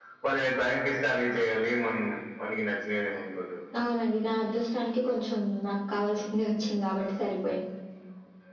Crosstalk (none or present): none